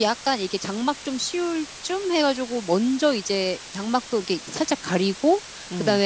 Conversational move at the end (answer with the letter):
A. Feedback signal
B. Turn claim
A